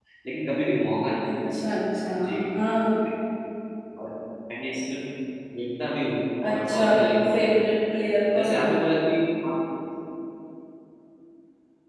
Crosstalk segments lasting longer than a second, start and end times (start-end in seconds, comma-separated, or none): 6.5-7.8